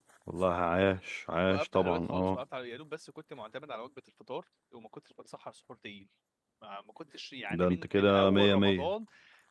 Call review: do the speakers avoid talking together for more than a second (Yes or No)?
No